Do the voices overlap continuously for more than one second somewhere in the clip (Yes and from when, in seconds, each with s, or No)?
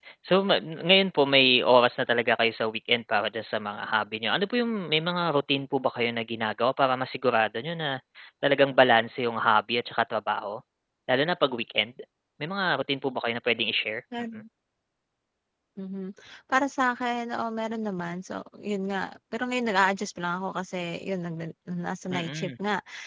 No